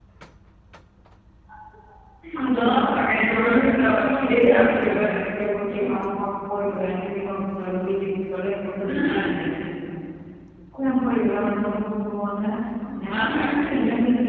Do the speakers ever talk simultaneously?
Yes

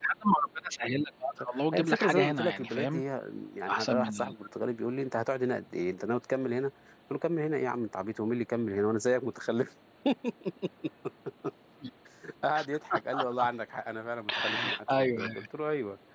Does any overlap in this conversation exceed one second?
Yes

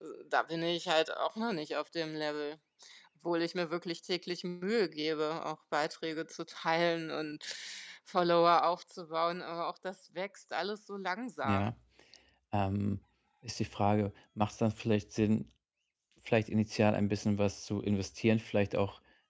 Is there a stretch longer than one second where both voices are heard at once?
No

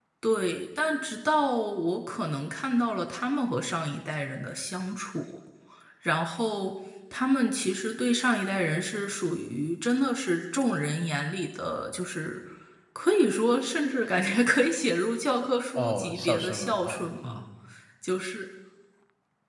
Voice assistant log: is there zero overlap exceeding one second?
No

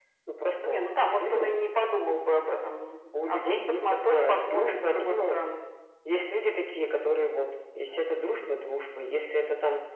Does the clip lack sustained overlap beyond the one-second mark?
No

